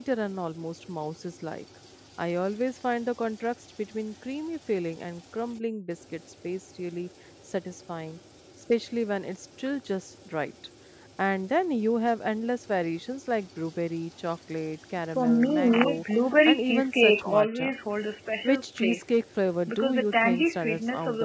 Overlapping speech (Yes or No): Yes